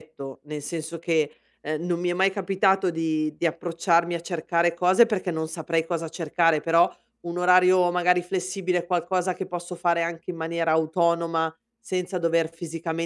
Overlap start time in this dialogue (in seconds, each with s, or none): none